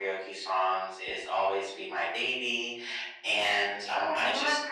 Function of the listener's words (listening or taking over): taking over